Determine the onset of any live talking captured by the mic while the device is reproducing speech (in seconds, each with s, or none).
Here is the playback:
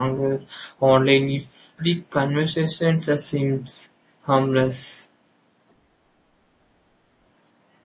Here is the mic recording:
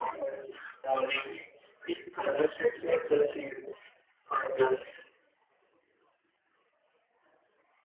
none